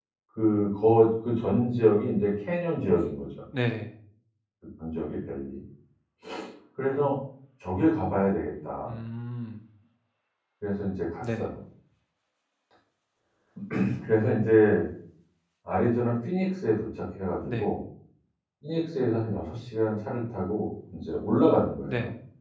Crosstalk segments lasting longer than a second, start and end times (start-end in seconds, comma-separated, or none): none